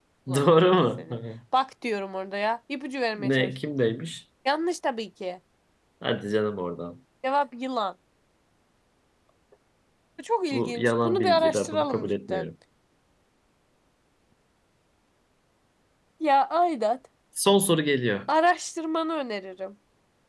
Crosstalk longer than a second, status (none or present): present